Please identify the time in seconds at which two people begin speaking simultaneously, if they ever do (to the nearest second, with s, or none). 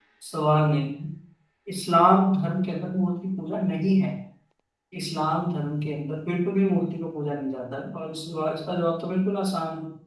none